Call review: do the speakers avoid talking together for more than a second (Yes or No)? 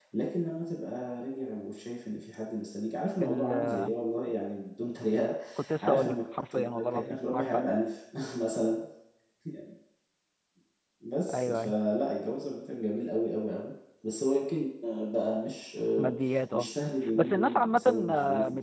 No